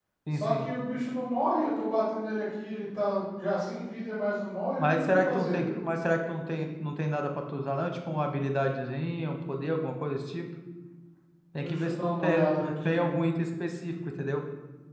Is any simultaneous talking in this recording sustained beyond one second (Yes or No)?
Yes